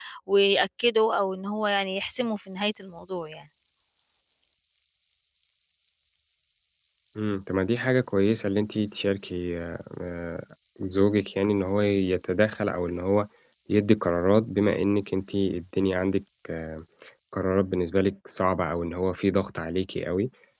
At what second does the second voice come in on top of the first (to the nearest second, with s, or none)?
none